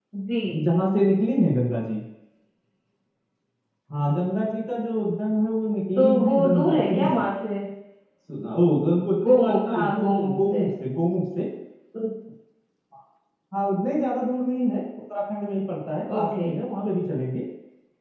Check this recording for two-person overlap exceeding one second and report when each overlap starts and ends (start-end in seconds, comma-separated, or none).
6.0-7.3, 9.3-10.6